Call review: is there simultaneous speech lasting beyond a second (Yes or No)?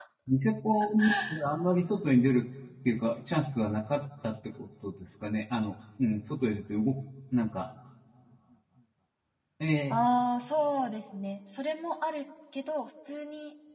No